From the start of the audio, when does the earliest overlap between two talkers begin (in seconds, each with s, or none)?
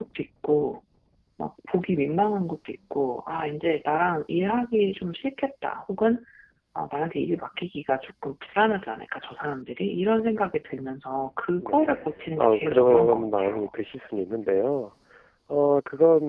11.6 s